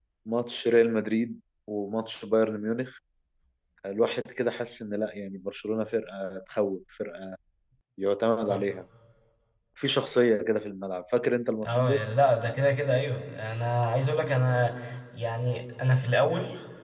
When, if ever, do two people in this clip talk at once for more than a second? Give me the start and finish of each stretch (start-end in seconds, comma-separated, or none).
none